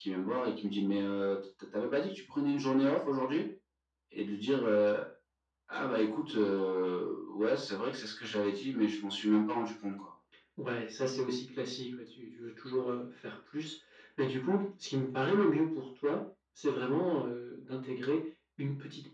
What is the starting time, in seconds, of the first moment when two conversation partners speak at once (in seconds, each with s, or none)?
none